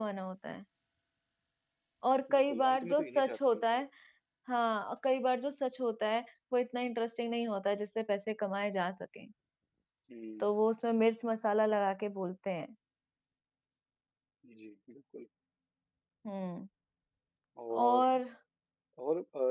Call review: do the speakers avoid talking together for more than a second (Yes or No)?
No